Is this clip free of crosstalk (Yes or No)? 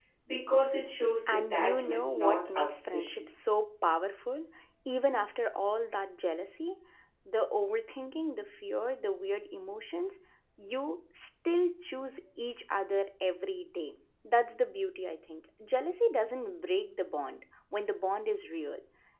No